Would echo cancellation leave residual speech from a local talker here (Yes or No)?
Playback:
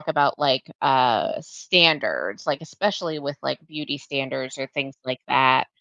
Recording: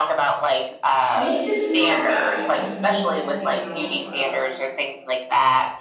Yes